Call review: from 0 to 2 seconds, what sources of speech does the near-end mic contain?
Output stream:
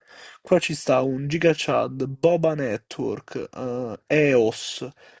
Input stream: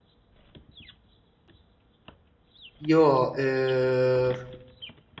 neither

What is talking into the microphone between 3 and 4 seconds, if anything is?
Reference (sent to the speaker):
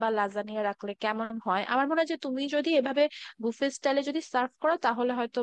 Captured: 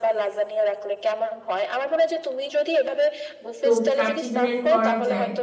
both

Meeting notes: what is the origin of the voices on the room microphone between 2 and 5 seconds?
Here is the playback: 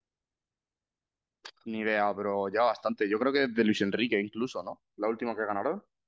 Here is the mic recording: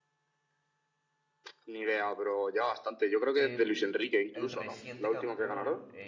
both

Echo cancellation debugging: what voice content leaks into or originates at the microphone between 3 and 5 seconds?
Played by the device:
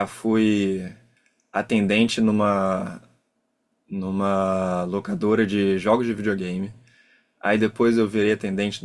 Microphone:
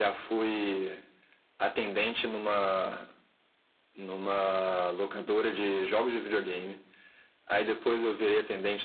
echo only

